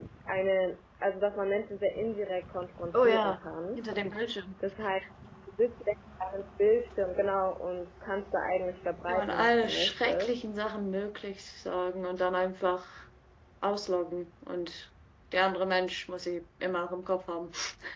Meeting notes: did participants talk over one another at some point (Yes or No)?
Yes